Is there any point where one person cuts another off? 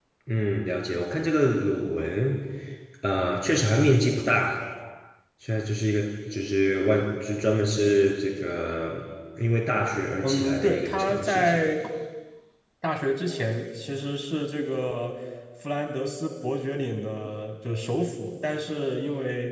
Yes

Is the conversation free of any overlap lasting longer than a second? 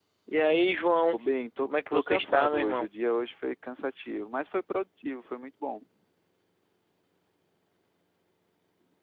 No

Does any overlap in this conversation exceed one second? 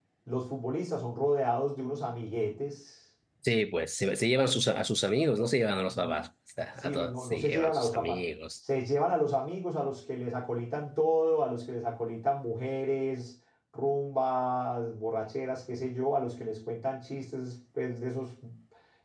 Yes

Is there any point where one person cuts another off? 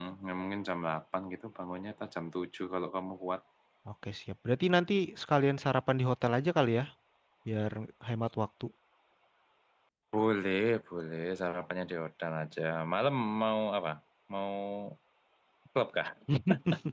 No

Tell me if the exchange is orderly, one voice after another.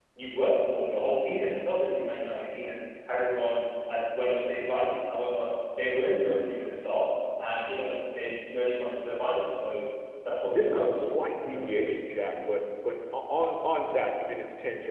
No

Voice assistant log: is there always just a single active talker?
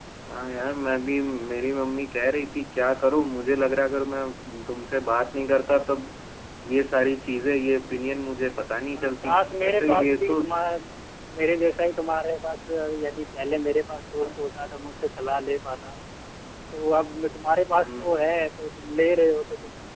No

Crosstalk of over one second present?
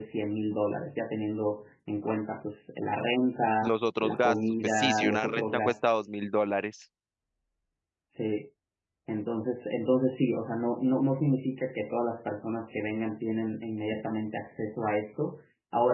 Yes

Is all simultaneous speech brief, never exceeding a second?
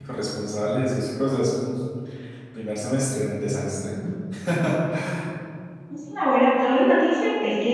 Yes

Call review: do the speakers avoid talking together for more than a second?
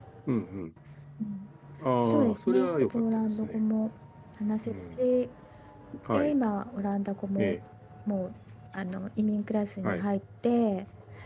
No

